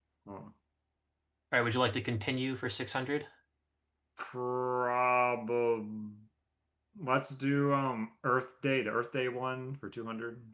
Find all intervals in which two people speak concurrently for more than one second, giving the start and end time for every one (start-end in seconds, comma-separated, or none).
none